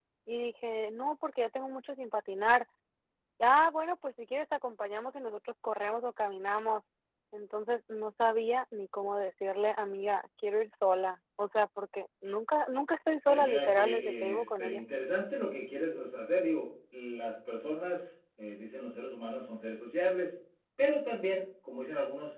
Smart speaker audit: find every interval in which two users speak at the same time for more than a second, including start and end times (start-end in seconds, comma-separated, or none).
13.2-14.8